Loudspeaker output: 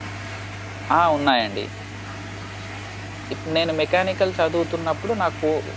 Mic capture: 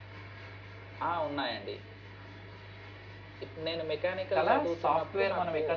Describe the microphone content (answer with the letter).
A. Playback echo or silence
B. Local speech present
B